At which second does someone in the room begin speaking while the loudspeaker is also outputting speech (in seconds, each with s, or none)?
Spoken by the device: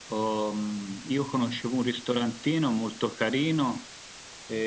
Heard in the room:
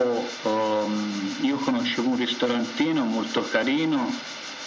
none